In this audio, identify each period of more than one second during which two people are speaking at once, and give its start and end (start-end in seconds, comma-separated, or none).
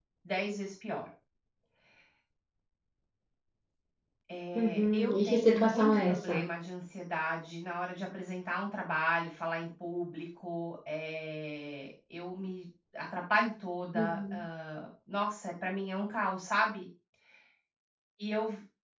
4.6-6.4